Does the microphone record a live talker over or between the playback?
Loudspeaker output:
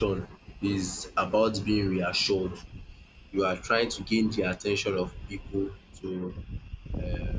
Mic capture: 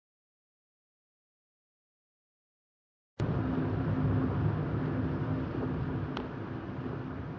No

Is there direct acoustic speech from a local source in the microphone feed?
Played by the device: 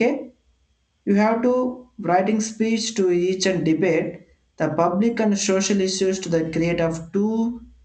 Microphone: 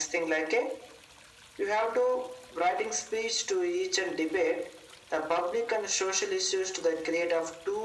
No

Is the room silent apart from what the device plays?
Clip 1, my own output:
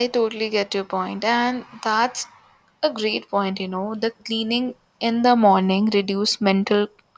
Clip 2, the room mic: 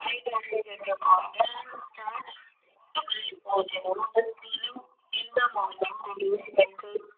Yes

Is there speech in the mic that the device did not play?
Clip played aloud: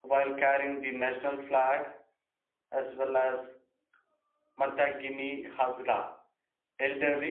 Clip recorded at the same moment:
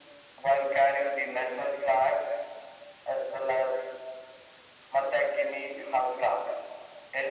No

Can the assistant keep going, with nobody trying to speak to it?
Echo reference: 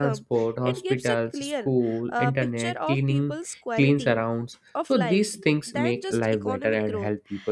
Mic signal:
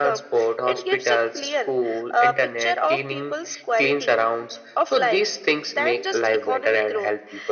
Yes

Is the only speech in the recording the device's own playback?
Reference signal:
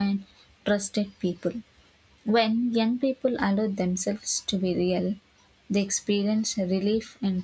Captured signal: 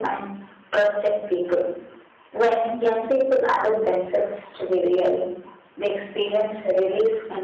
Yes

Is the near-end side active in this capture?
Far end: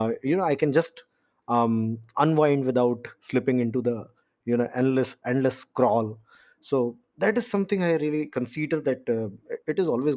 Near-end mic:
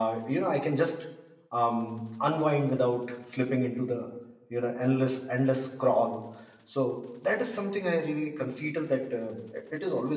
No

